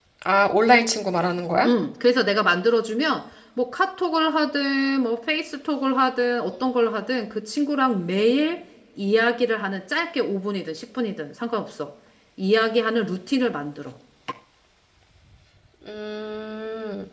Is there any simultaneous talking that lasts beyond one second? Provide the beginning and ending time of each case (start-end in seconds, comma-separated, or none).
none